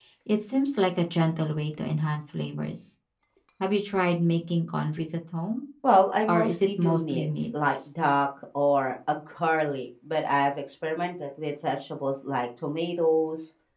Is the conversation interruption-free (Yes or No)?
No